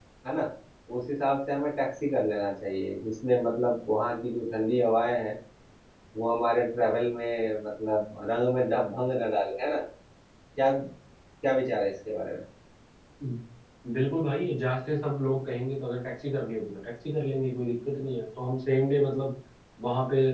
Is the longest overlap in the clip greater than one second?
No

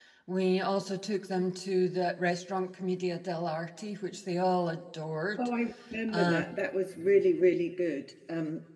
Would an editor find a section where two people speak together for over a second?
No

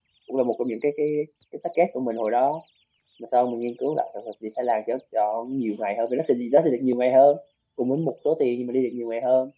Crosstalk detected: No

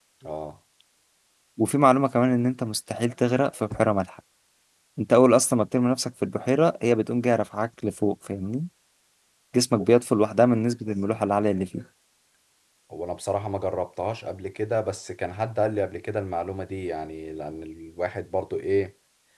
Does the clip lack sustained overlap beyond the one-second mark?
Yes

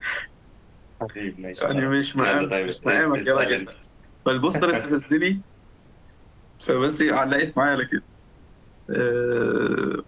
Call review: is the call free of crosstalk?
No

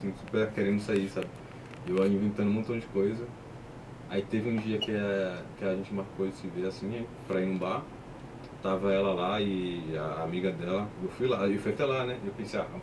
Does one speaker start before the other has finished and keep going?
No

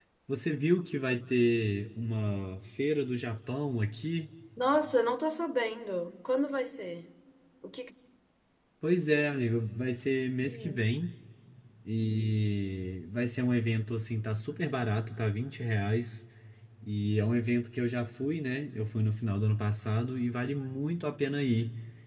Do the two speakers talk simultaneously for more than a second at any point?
No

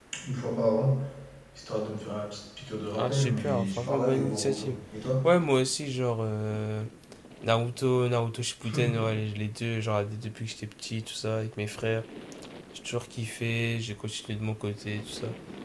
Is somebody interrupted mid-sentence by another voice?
Yes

